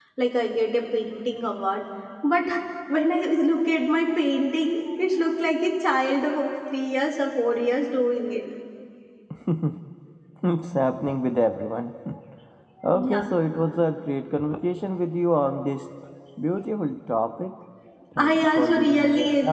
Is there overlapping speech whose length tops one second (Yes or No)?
Yes